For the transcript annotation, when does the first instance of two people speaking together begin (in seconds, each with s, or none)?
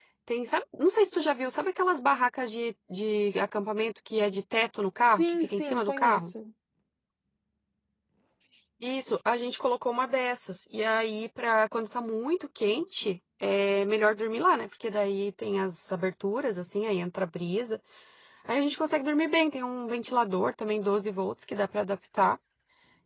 5.1 s